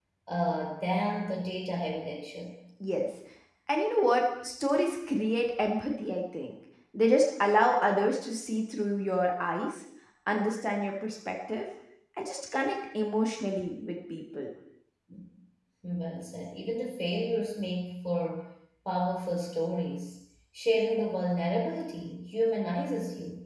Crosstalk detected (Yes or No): No